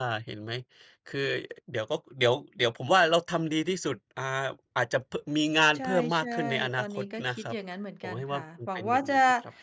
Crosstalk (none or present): present